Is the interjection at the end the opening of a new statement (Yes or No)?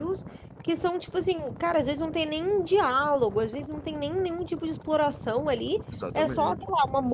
No